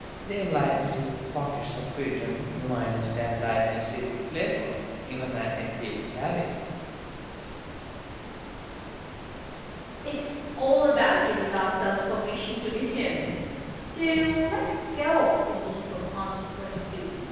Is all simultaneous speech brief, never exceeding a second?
Yes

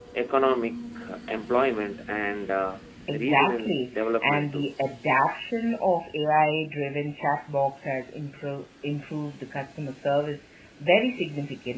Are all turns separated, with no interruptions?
No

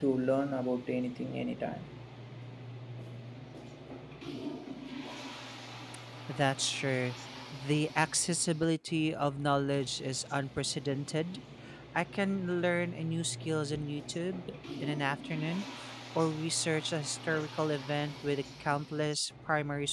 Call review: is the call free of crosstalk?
Yes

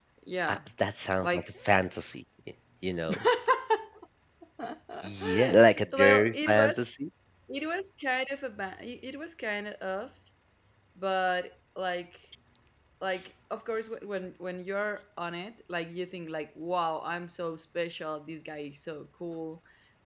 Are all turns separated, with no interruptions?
No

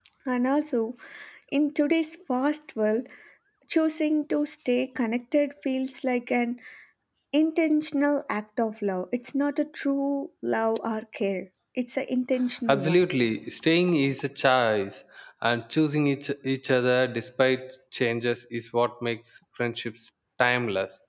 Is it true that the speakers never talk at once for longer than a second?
Yes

